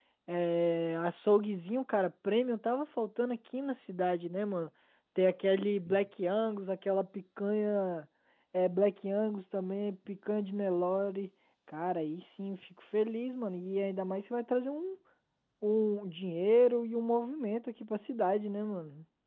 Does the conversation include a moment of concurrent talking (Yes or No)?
No